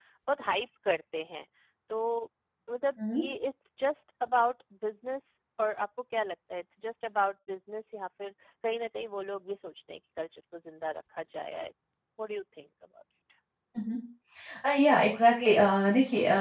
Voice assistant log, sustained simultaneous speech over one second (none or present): none